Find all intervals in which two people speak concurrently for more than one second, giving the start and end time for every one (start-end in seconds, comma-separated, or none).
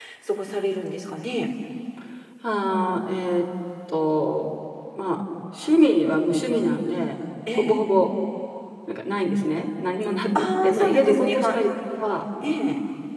10.3-11.6